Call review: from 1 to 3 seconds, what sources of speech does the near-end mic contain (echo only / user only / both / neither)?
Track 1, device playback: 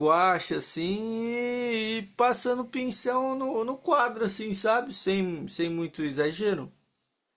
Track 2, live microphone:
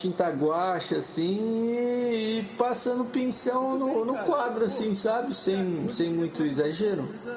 echo only